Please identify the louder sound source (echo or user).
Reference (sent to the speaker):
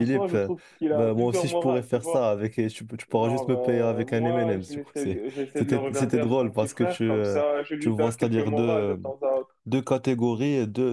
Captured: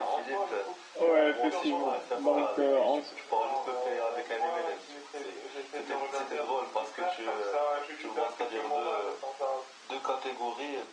user